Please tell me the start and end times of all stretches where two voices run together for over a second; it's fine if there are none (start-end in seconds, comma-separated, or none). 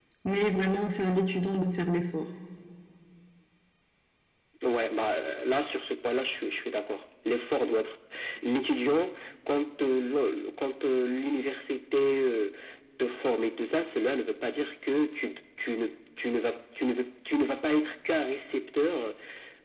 none